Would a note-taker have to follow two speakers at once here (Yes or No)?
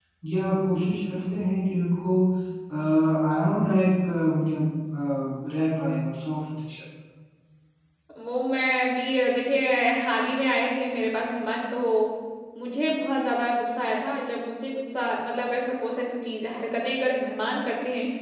No